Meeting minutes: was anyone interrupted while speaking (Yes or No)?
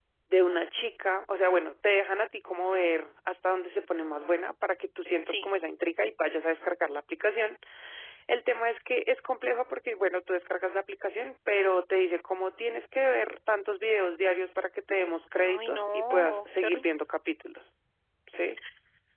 Yes